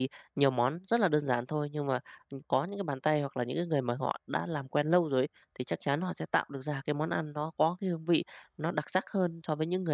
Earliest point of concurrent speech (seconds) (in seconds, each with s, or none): none